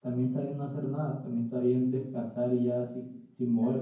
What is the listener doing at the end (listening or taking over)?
taking over